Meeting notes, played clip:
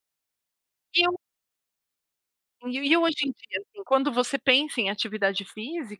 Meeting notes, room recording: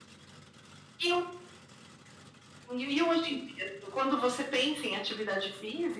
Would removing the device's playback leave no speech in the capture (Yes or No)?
Yes